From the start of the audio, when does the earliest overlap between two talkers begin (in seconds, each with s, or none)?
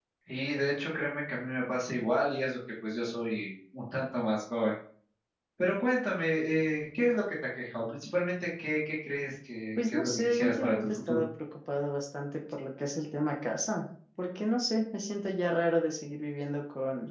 9.8 s